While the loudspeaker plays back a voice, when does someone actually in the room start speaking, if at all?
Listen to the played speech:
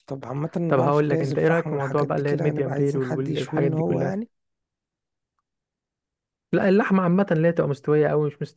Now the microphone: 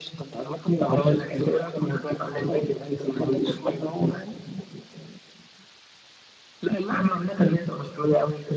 2 s

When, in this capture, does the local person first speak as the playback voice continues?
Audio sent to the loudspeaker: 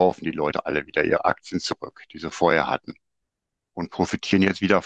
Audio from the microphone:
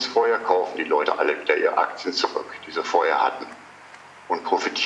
none

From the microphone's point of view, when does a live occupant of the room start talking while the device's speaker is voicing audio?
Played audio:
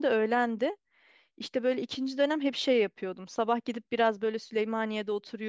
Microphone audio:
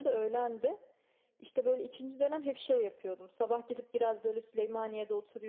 none

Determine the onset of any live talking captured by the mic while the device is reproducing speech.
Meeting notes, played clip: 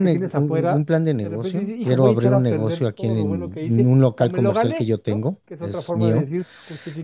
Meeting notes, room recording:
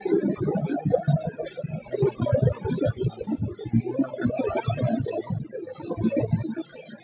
none

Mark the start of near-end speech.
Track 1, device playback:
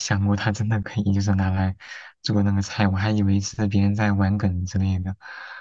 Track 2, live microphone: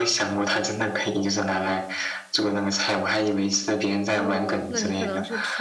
4 s

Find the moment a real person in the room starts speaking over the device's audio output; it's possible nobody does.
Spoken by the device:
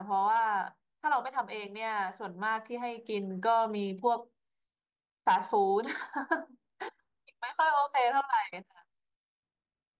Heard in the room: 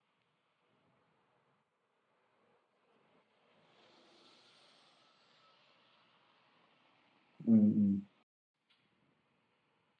7 s

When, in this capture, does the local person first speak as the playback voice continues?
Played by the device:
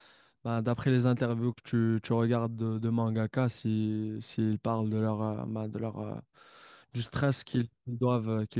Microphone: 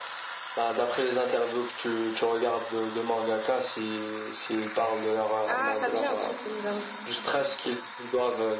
5 s

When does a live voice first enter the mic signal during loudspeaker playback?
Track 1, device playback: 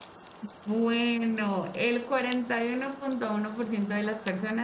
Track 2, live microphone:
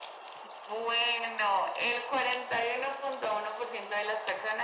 none

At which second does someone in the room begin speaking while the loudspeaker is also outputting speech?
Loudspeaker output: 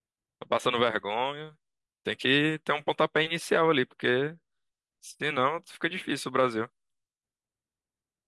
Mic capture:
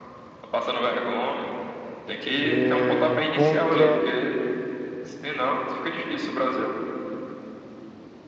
2 s

